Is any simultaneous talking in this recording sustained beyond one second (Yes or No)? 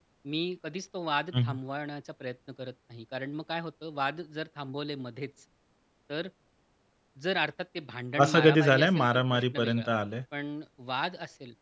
Yes